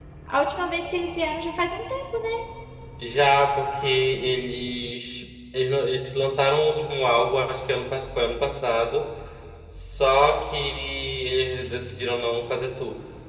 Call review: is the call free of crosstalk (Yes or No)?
Yes